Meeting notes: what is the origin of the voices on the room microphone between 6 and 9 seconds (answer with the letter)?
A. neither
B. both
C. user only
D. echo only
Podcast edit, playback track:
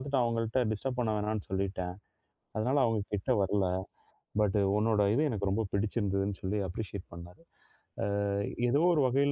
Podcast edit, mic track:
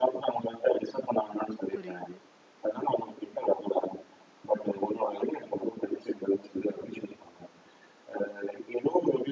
D